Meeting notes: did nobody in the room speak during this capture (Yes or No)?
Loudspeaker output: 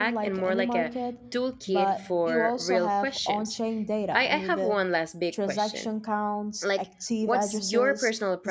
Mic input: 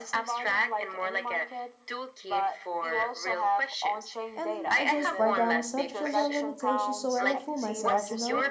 No